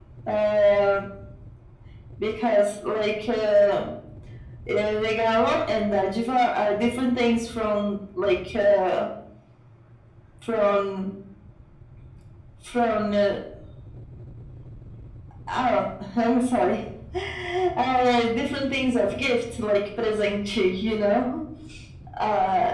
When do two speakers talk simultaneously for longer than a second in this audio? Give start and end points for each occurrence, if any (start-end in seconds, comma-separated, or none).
none